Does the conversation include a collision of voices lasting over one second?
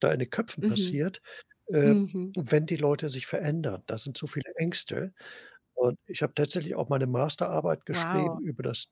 No

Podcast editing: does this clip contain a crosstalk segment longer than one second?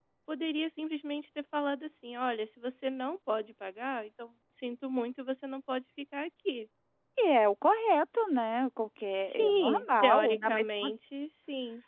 Yes, from 9.2 s

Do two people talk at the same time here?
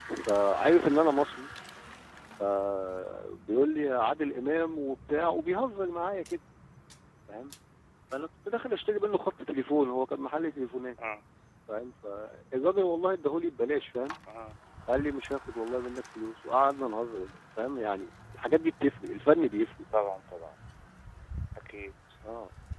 No

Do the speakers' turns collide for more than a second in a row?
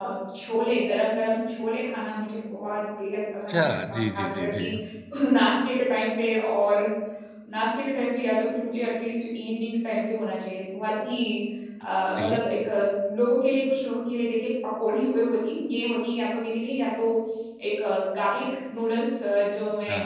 Yes, from 3.5 s

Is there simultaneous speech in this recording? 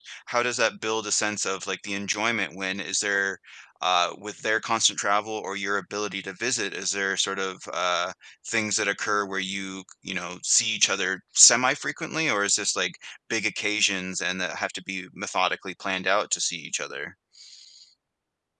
No

